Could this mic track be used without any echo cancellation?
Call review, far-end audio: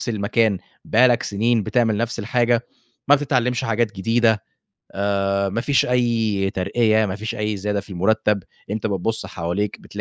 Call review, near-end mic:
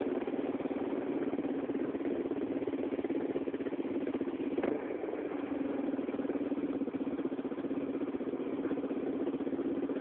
Yes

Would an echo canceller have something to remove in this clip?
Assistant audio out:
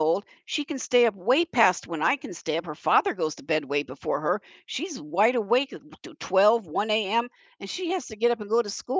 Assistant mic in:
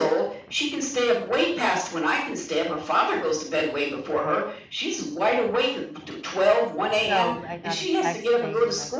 Yes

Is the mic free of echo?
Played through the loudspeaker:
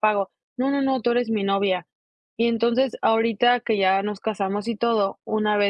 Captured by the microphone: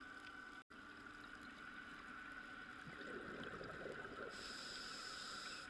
Yes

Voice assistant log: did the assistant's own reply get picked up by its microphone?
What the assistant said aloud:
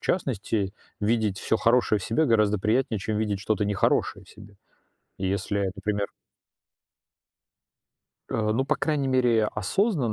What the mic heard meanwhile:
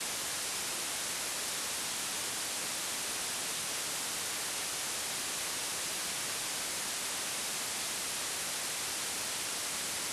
No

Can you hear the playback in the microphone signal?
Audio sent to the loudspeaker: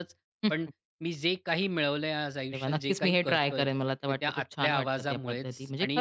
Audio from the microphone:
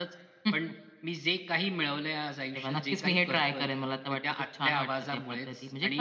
Yes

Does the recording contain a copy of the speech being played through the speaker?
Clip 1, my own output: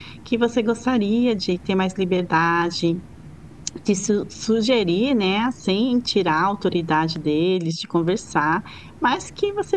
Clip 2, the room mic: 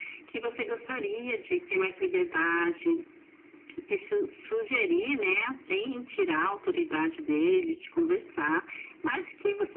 Yes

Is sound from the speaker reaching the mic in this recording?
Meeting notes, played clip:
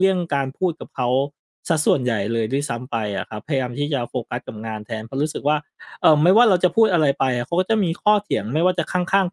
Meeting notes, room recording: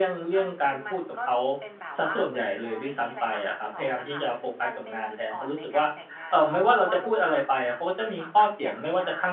Yes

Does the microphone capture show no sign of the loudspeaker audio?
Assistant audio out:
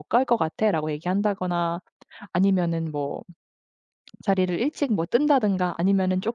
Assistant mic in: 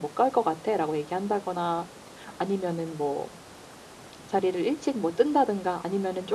No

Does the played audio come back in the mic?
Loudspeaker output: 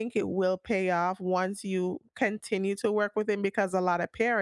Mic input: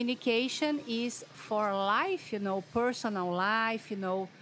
No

